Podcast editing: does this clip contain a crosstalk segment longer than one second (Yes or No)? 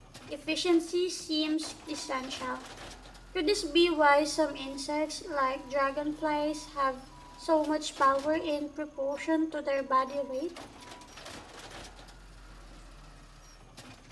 No